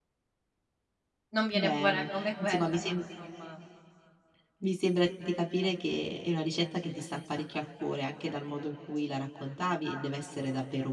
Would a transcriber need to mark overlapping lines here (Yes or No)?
Yes